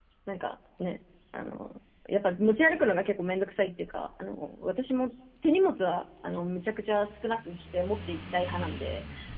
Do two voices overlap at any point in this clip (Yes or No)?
No